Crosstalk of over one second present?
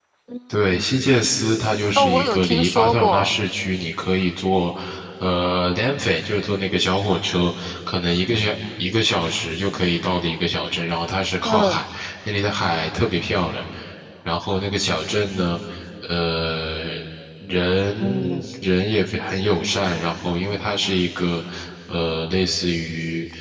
Yes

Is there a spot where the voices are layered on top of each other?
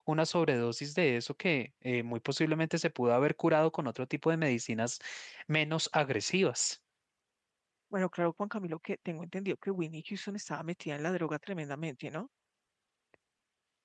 No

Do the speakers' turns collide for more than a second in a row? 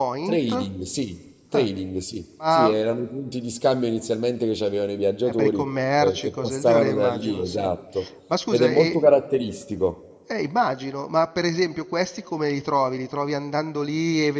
Yes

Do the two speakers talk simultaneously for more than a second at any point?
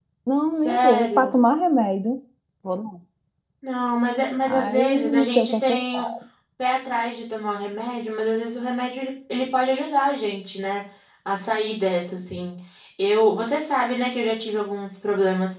Yes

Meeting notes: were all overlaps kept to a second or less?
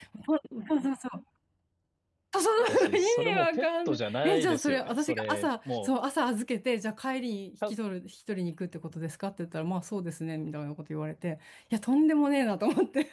No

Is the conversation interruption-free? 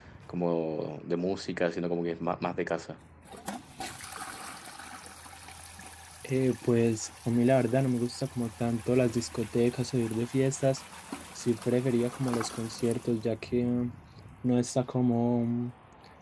Yes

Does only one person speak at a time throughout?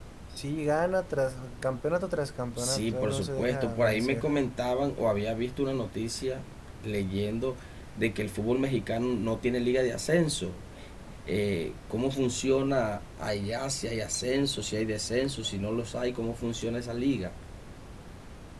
No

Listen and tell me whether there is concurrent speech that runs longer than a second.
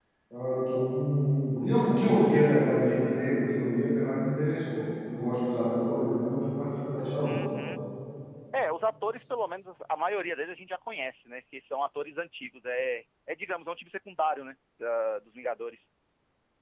No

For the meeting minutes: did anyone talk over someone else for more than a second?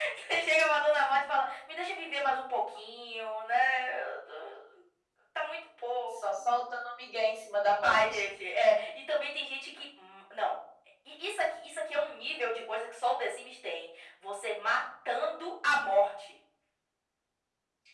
No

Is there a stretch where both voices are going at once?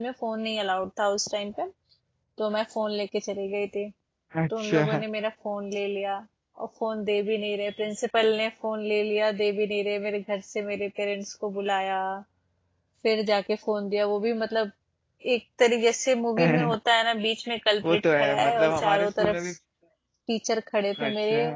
Yes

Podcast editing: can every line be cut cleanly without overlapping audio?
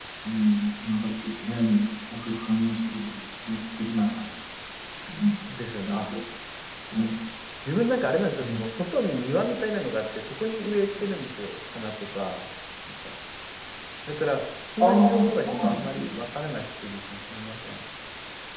No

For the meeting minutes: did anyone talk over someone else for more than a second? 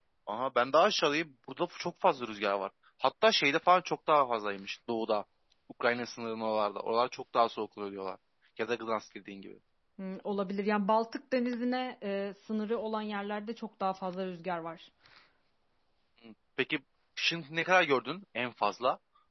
No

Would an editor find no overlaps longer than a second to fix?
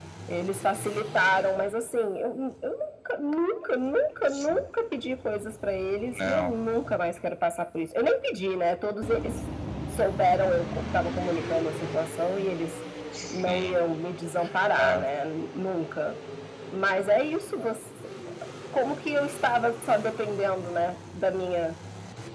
Yes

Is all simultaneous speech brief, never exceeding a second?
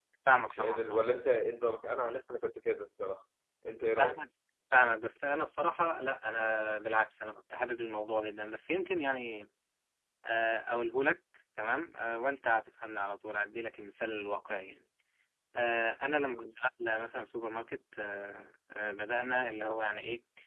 Yes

